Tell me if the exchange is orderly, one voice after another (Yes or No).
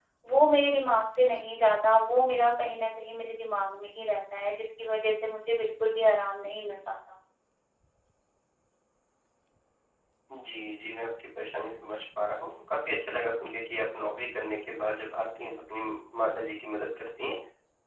Yes